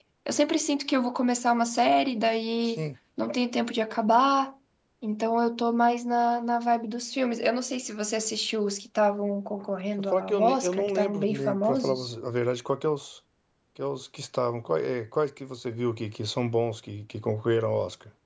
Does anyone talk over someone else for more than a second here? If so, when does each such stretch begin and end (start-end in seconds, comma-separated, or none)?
10.1-12.1